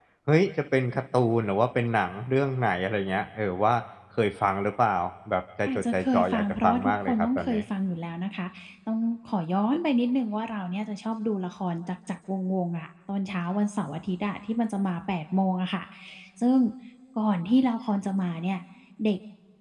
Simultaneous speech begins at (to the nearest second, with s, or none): 6 s